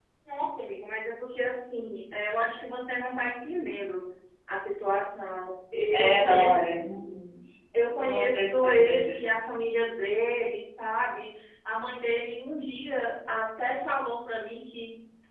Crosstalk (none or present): present